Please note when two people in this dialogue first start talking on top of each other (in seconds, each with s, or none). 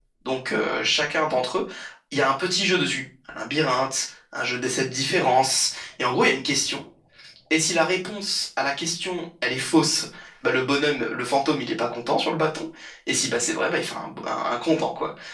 none